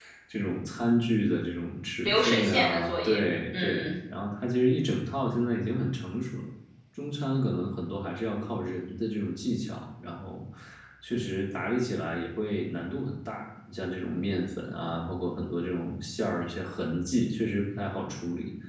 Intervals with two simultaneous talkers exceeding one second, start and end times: 2.0-3.9

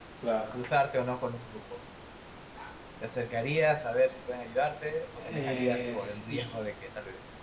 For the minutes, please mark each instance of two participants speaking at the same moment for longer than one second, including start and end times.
5.2-6.5

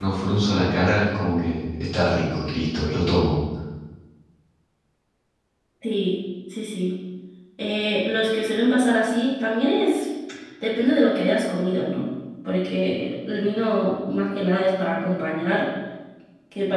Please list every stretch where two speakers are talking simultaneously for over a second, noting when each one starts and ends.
none

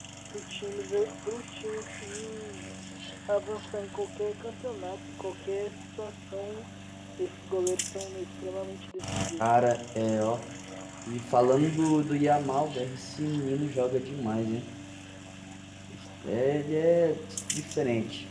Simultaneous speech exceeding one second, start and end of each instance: none

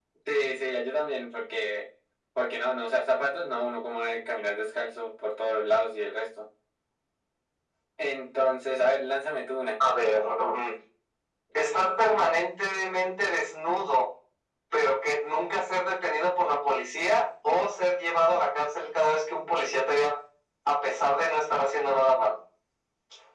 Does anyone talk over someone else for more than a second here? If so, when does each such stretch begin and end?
none

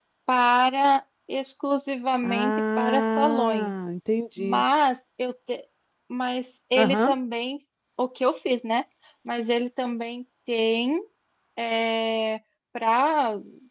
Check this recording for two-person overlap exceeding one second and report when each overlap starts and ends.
2.2-3.7

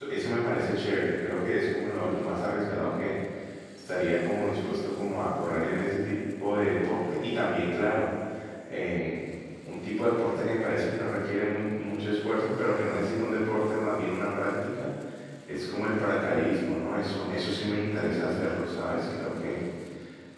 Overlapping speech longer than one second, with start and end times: none

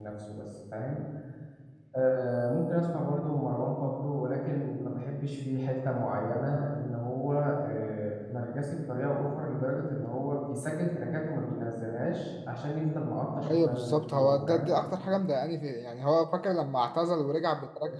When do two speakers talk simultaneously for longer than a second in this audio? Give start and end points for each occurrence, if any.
13.4-14.7

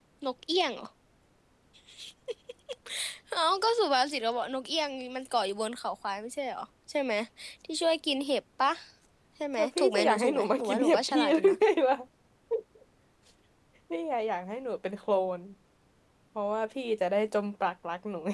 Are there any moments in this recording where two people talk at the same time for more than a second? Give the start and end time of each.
9.6-11.6

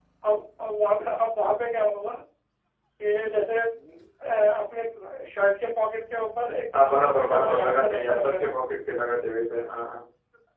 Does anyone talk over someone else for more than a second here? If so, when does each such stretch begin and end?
6.7-8.5

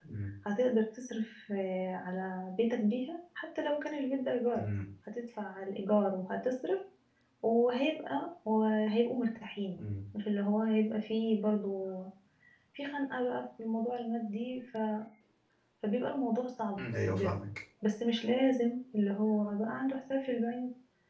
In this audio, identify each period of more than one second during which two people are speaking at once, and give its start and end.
none

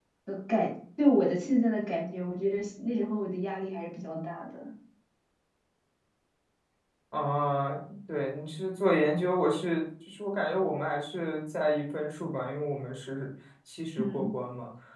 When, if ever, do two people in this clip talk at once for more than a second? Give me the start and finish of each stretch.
none

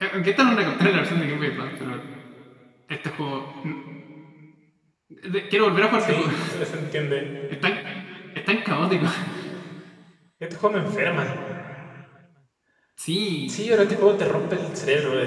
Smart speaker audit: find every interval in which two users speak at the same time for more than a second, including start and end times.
none

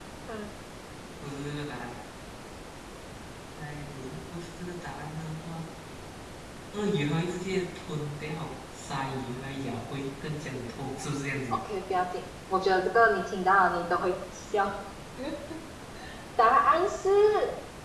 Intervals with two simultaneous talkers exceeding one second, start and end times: none

